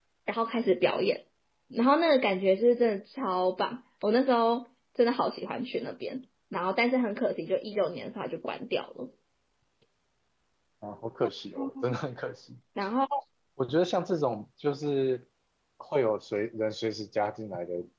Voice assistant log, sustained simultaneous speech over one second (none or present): none